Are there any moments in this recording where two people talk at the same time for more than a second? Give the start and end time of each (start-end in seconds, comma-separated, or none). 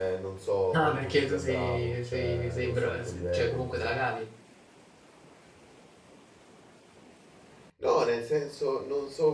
0.7-4.0